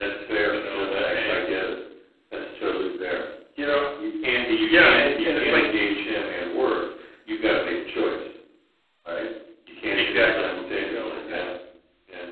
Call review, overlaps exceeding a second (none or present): present